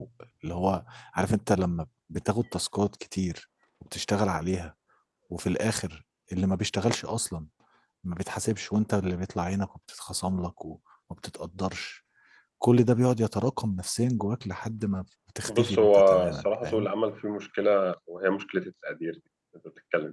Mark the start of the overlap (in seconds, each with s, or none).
15.5 s